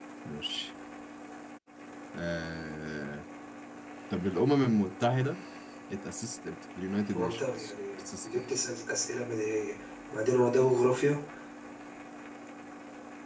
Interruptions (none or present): present